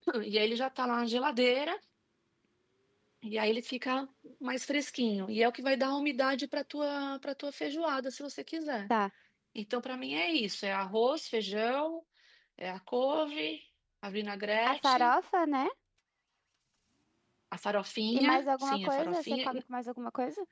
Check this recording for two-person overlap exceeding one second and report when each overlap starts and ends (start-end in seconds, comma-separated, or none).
18.1-19.5